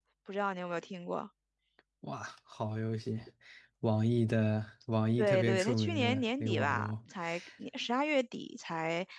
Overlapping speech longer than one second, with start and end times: 5.2-6.9

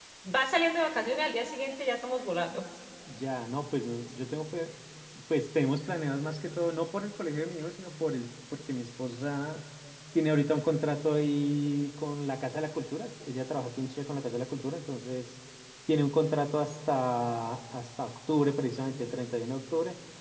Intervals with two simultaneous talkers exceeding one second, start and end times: none

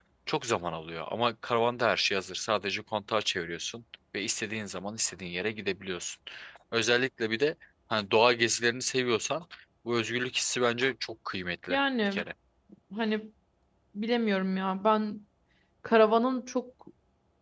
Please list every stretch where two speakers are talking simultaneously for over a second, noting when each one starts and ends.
none

